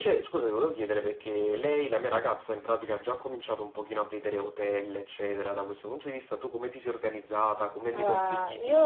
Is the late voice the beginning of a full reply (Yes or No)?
Yes